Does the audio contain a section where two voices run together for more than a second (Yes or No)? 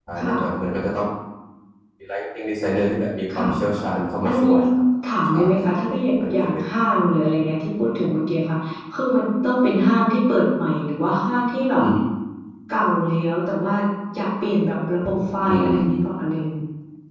No